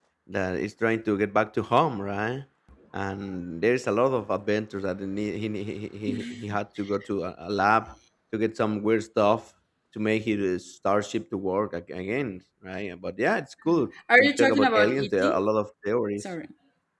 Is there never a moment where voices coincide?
No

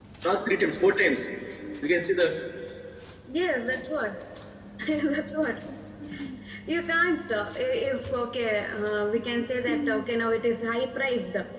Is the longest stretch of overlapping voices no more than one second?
Yes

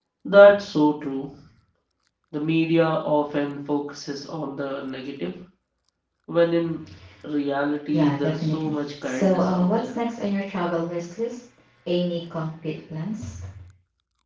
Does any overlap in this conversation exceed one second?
Yes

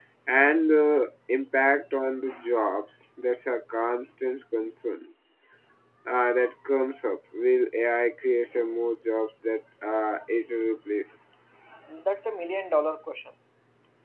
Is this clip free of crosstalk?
Yes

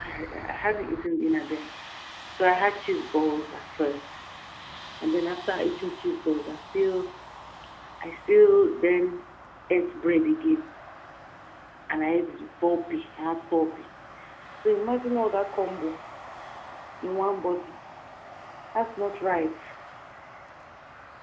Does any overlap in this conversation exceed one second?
No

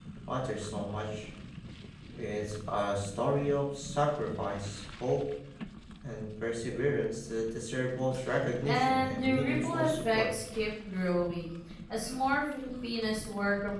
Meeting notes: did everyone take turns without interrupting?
No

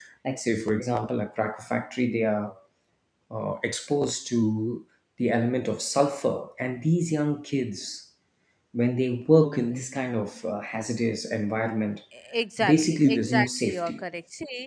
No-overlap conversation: No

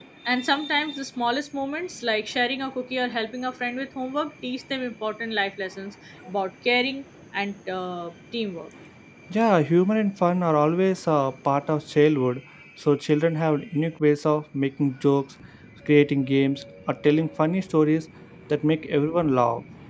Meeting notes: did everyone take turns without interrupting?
Yes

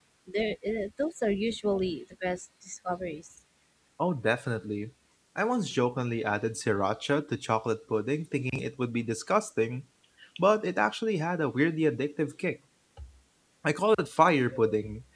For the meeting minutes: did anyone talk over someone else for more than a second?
No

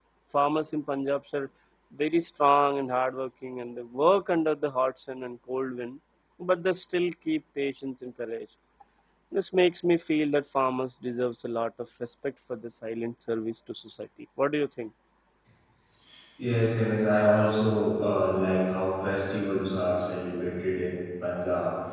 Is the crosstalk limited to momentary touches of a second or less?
Yes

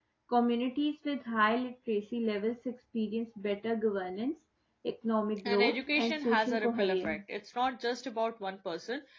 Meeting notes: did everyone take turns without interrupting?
No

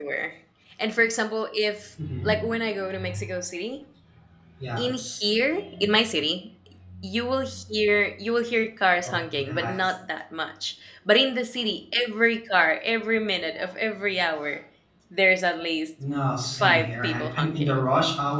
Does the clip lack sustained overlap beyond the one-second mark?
No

